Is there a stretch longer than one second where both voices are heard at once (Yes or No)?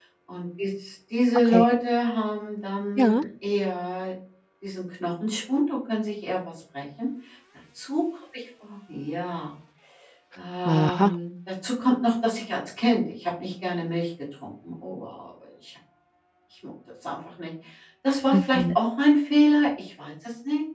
No